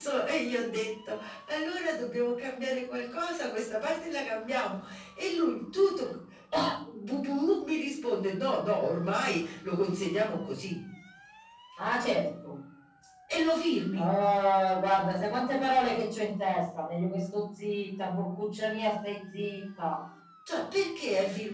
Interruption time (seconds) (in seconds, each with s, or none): none